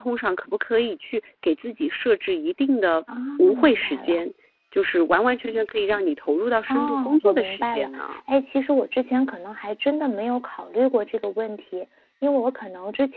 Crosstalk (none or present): present